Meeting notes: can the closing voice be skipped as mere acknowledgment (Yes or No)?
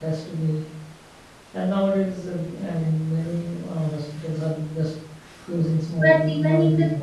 No